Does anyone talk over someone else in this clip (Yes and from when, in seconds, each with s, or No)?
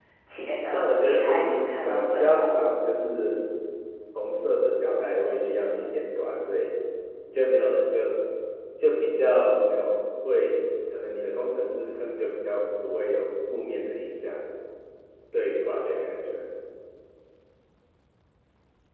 Yes, from 0.7 s